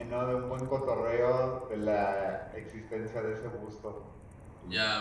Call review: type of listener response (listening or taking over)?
taking over